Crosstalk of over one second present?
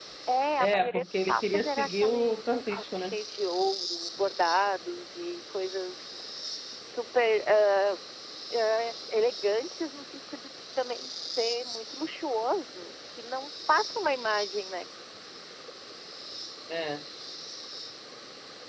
Yes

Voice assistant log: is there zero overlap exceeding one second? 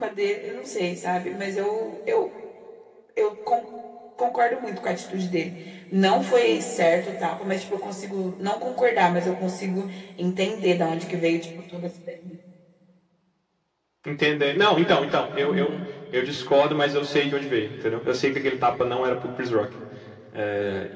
Yes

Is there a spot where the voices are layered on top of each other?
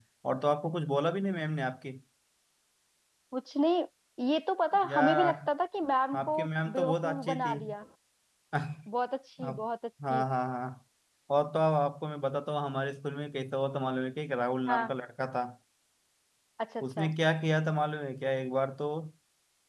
Yes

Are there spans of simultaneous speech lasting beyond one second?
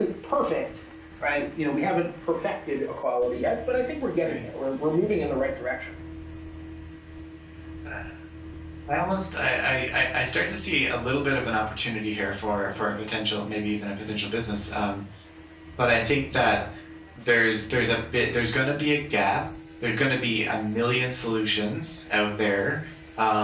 No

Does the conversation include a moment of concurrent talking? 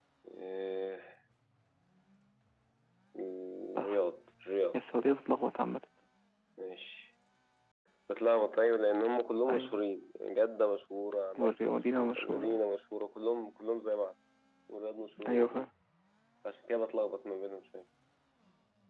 Yes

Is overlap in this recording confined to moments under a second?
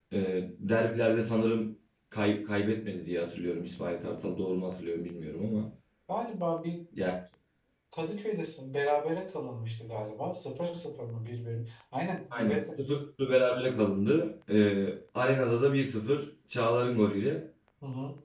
Yes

